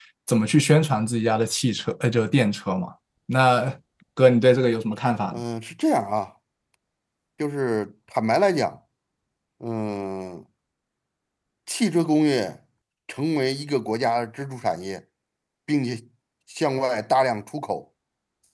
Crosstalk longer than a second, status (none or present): none